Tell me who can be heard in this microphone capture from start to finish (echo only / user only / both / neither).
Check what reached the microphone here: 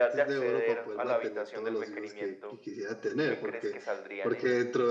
both